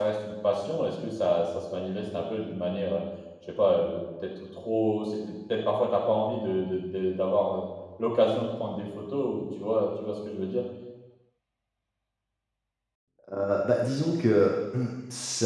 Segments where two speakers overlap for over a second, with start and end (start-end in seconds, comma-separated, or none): none